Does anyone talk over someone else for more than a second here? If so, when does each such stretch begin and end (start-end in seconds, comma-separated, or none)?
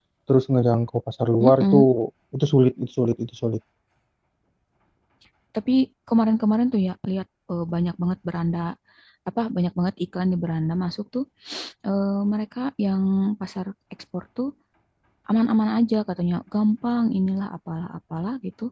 none